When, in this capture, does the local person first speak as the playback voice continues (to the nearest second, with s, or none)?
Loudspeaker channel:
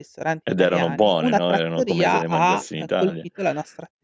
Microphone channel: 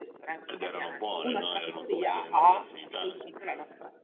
none